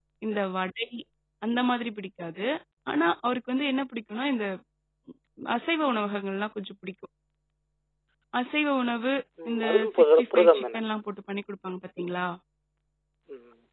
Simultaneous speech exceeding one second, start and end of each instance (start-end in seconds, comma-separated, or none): 9.5-10.9